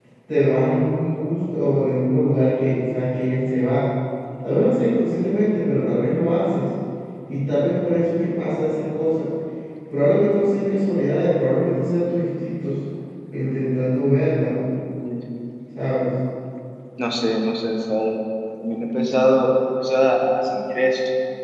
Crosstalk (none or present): none